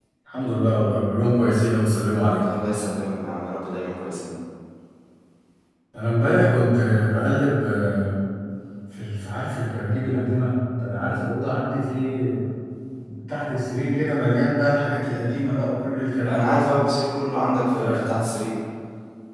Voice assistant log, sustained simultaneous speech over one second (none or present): none